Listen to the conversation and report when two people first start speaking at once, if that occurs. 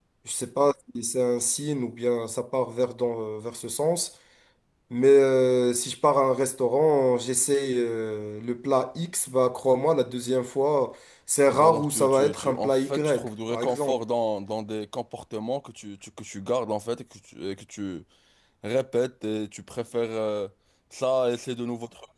11.5 s

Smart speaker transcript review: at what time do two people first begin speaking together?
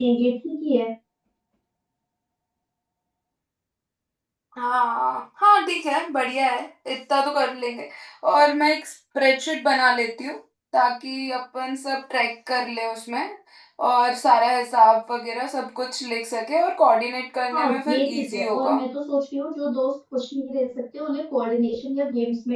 17.5 s

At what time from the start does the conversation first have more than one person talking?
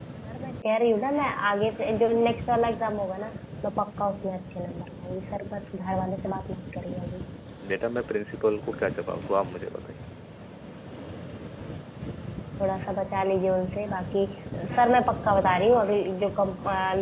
none

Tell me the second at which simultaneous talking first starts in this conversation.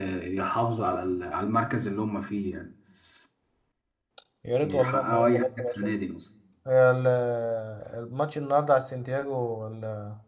4.6 s

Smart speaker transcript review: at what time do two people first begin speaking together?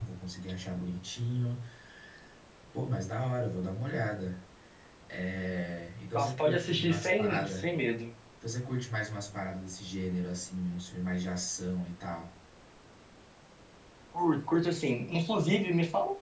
6.2 s

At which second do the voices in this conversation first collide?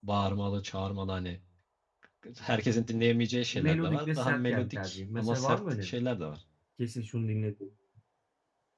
3.5 s

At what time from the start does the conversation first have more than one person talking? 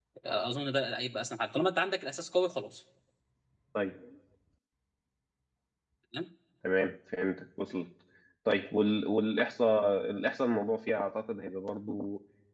none

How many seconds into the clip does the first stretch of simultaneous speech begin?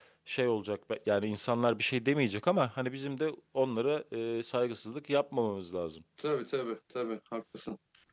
none

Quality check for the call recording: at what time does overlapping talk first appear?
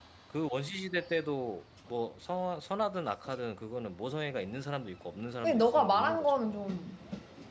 5.4 s

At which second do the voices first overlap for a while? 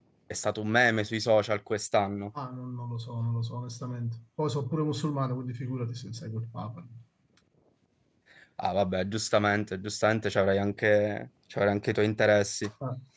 none

